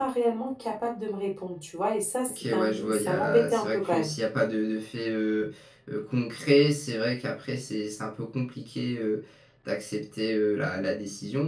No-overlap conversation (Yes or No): No